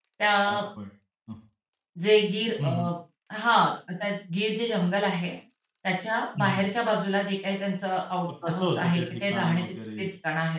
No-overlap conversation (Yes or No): No